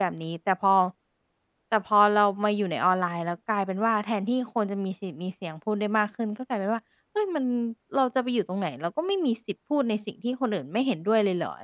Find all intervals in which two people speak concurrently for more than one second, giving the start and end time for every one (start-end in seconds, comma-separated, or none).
none